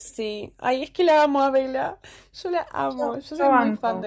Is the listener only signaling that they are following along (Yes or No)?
No